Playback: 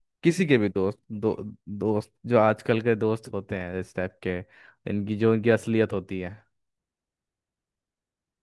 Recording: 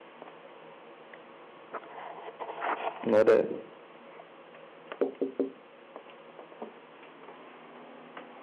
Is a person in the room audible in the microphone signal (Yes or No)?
Yes